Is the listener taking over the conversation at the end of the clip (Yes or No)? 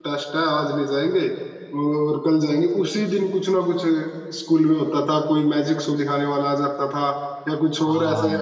No